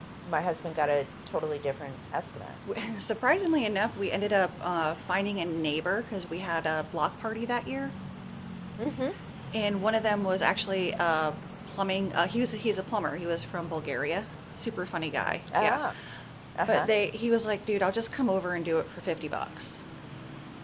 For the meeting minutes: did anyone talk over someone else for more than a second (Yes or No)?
No